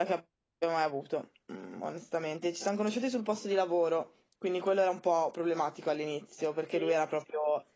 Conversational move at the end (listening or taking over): listening